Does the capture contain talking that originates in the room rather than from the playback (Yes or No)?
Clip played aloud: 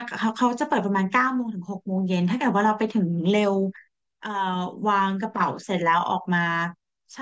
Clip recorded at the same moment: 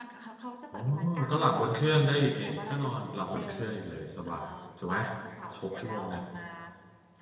Yes